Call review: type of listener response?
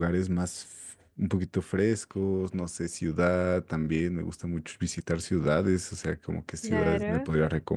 listening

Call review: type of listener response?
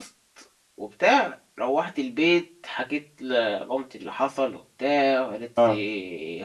listening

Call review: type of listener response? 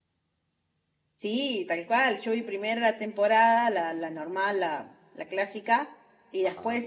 listening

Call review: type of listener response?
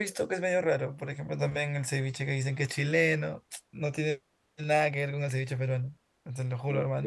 listening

